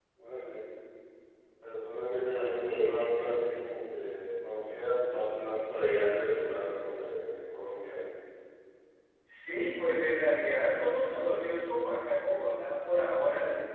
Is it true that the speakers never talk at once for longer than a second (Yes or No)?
Yes